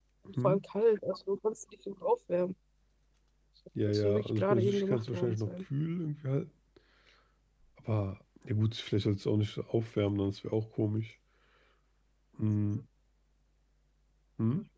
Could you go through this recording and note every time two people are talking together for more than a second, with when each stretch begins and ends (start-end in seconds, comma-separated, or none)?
3.9-5.5